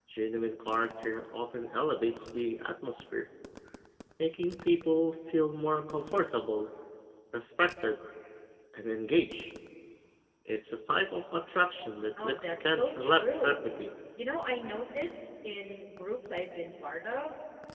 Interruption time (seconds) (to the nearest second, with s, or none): 12 s